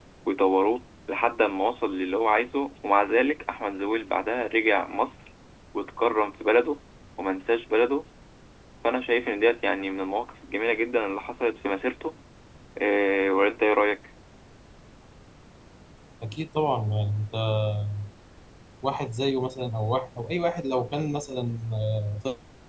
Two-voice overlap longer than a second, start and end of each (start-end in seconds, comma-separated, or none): none